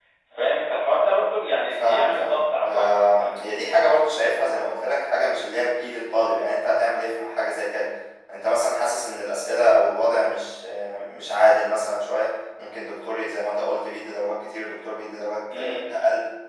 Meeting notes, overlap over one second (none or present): present